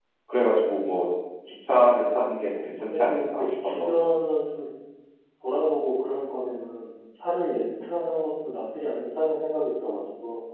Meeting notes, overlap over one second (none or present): present